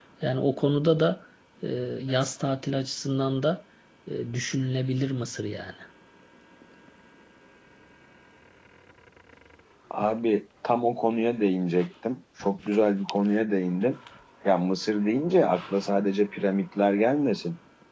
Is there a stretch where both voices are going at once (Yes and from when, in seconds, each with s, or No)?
No